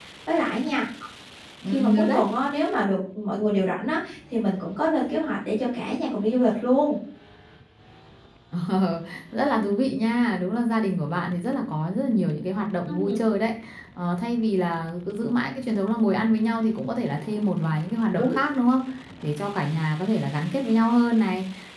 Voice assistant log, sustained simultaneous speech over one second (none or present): none